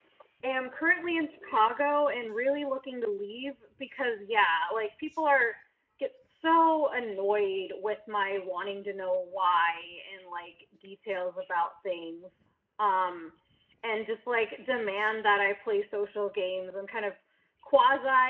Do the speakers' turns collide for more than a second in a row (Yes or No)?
No